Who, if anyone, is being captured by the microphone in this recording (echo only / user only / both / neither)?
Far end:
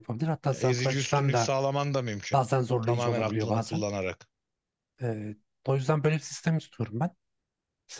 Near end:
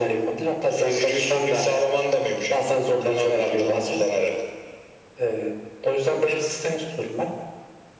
echo only